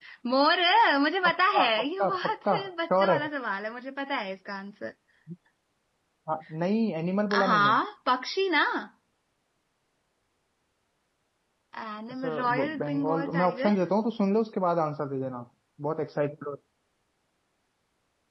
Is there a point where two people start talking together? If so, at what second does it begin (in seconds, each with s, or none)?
1.2 s